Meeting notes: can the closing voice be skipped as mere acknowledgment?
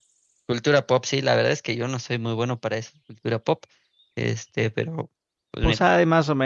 No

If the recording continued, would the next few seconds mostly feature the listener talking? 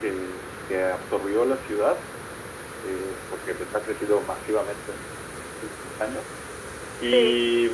No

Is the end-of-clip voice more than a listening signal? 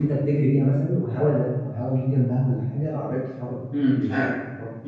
Yes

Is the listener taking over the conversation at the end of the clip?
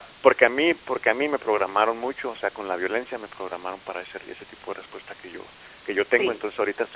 No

